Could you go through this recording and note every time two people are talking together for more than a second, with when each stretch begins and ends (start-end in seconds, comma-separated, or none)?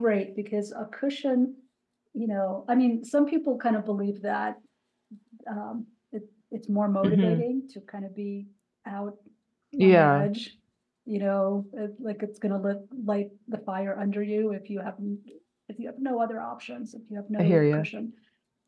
none